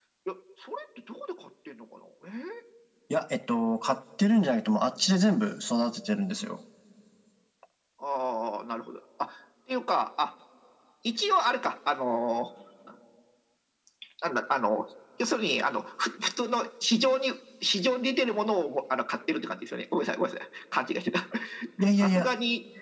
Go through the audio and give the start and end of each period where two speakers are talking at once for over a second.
none

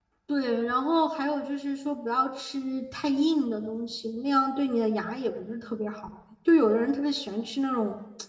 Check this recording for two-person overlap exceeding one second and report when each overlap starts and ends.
none

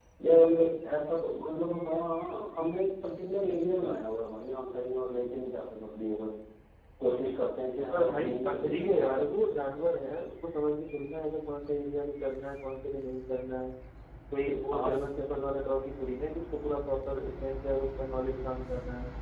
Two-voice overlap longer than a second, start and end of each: 7.9-9.2

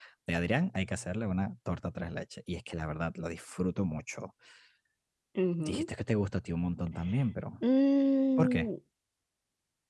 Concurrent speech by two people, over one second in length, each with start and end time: none

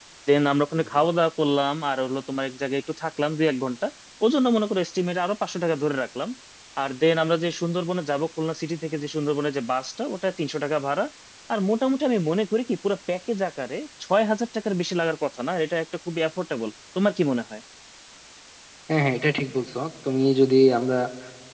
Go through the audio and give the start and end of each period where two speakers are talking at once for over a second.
none

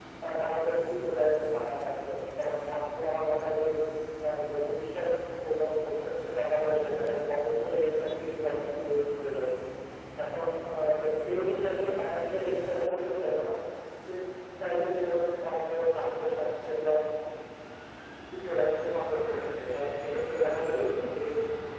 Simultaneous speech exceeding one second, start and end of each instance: none

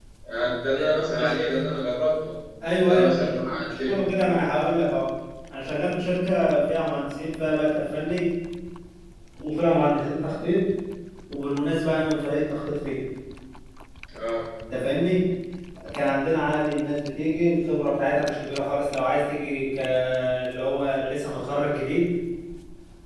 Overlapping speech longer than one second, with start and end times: 2.8-4.1

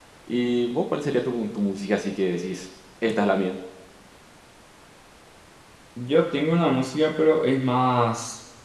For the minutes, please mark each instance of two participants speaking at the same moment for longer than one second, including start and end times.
none

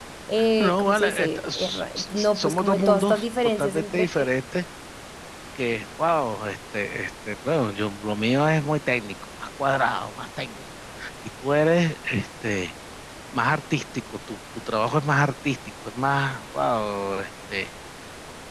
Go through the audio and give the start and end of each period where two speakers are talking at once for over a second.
0.6-4.1

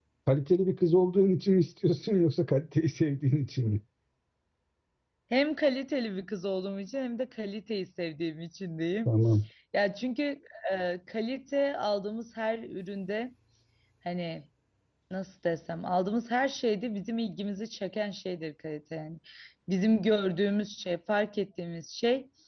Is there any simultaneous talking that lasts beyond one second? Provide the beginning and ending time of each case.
none

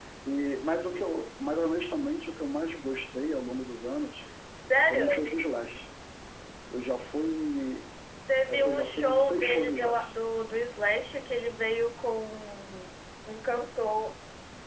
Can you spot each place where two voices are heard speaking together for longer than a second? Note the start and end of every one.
8.5-10.1

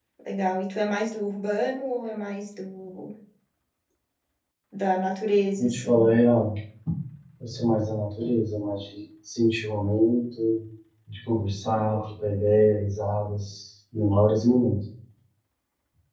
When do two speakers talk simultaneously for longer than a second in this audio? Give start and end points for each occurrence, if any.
none

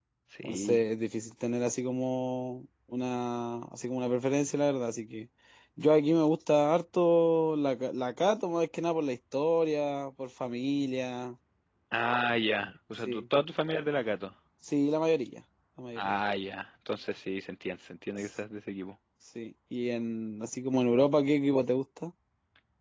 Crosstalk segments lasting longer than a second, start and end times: none

